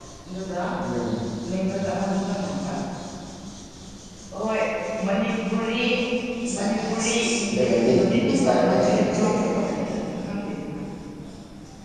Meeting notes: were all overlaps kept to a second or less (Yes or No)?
No